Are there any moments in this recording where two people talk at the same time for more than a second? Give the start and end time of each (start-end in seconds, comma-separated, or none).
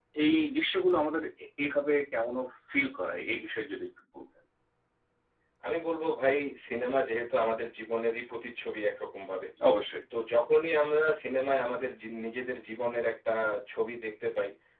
none